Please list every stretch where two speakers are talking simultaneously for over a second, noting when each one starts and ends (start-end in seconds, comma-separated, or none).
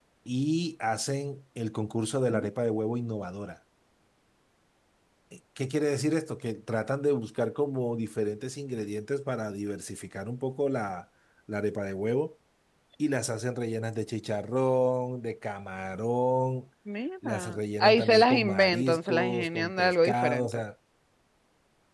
17.2-20.6